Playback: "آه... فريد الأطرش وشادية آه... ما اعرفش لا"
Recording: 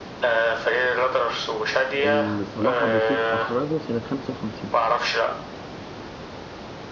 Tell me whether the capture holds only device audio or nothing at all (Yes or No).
No